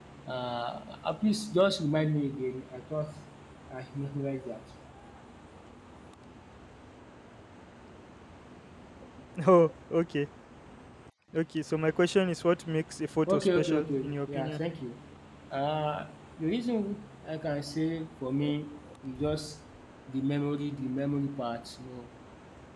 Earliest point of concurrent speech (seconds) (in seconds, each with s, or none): 13.3 s